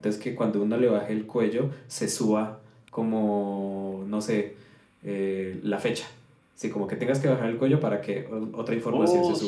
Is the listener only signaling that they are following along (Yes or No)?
No